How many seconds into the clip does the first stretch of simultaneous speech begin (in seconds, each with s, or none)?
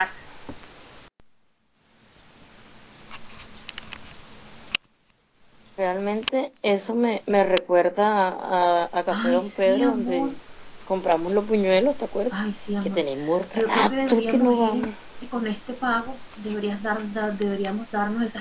9.1 s